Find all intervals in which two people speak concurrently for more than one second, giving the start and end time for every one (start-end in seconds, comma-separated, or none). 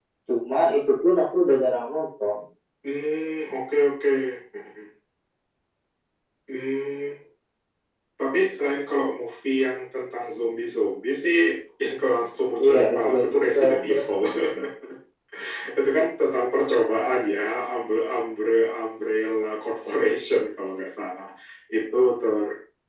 12.6-14.0